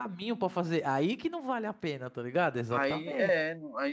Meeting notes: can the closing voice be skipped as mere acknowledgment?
No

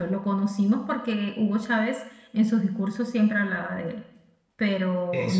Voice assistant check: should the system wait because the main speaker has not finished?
No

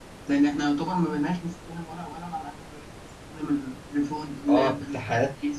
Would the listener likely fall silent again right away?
No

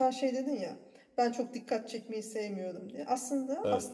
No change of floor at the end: Yes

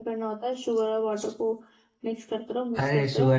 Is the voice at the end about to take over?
Yes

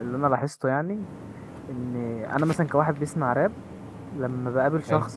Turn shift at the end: No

